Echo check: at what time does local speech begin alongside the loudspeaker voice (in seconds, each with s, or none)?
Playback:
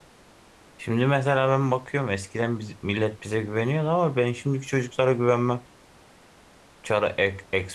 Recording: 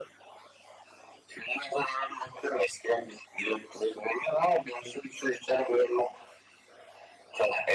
none